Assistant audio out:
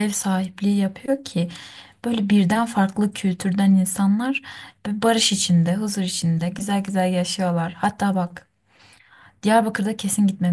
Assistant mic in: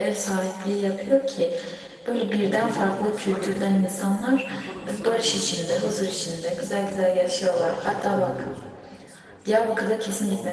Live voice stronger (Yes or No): No